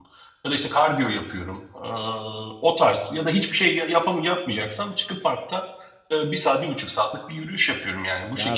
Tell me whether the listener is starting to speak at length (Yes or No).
Yes